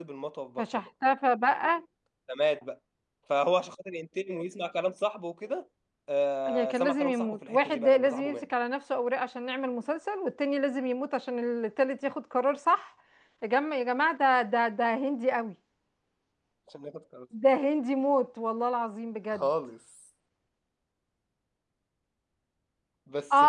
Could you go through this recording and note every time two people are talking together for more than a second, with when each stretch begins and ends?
6.5-8.4

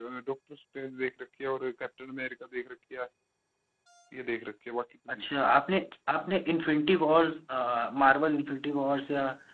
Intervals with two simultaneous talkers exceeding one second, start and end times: none

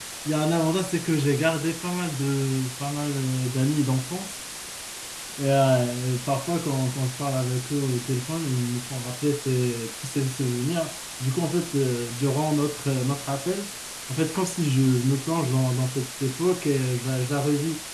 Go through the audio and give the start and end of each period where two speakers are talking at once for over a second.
none

